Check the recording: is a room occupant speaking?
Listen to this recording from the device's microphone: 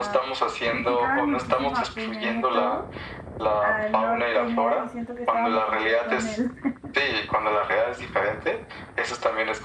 Yes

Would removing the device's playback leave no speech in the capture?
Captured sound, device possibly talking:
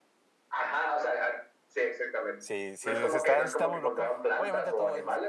No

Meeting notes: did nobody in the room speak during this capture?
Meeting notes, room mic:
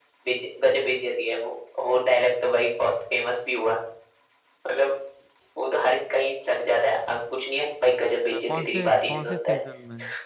No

